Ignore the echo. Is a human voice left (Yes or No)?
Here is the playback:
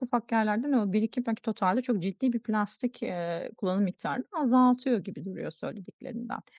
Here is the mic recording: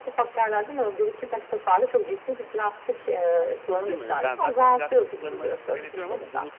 Yes